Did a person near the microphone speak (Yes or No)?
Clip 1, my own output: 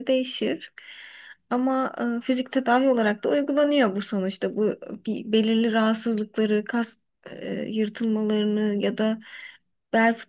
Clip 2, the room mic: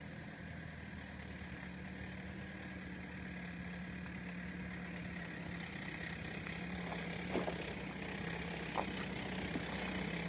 No